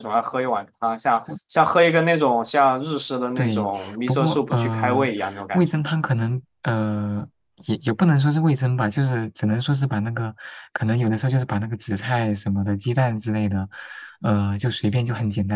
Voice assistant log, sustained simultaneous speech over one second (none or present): present